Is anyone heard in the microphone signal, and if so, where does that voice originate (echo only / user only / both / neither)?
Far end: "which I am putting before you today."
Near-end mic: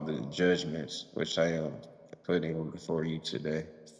echo only